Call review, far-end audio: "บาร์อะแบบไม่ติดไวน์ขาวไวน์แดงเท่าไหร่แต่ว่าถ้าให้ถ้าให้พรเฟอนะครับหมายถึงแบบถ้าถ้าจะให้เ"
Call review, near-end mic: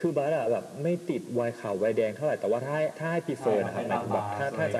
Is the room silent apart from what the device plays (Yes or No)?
No